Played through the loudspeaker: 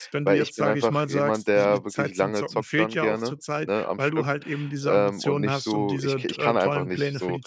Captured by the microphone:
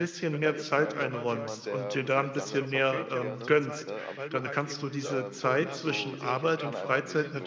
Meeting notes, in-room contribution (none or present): present